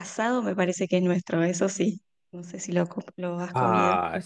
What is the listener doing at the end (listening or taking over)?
taking over